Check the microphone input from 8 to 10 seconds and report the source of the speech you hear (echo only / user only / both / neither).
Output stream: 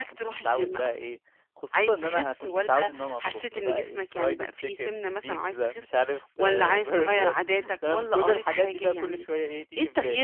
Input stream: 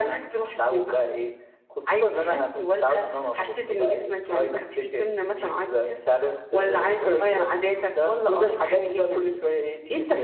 echo only